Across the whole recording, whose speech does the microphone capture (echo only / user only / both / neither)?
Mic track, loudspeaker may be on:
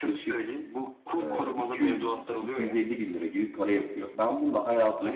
both